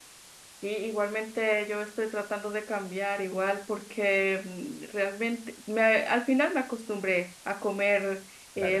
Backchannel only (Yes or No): Yes